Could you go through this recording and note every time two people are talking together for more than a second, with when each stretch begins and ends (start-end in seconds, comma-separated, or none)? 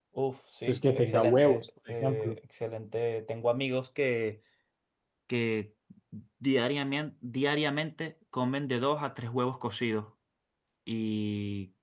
0.7-2.4